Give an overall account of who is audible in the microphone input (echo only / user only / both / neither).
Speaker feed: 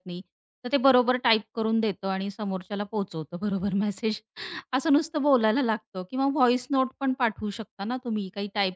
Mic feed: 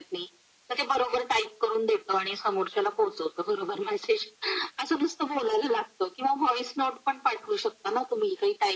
echo only